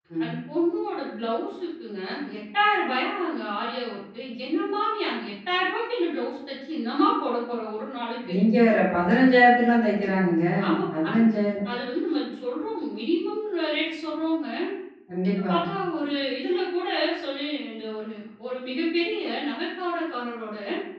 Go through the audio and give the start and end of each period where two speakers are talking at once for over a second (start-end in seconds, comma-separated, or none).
none